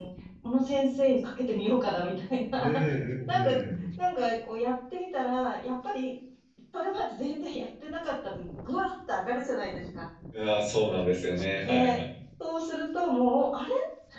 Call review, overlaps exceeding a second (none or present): none